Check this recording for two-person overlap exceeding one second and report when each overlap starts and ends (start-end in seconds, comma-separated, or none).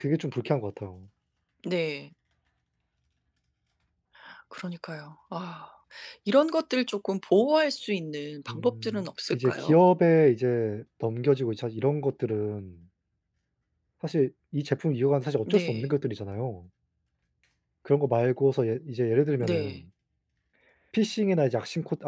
8.5-9.7